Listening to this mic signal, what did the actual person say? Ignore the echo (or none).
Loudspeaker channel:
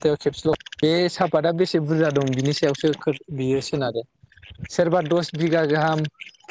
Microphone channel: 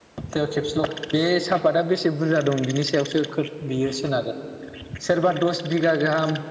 none